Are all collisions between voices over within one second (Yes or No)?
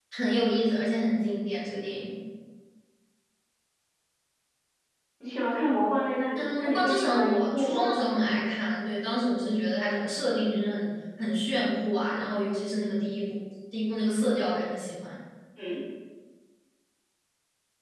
No